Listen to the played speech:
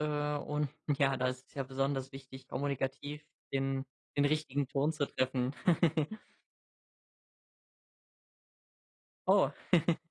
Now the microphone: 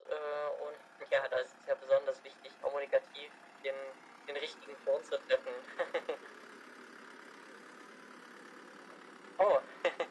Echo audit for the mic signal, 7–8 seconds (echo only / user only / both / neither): neither